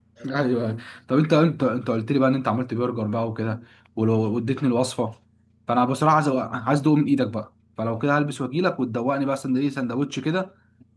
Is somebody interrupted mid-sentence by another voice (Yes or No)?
No